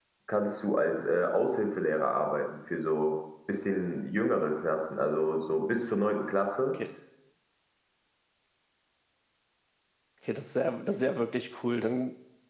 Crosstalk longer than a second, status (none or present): none